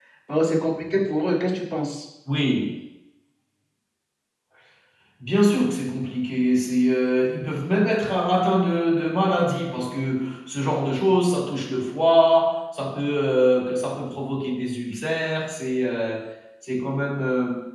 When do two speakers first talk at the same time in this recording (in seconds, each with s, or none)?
none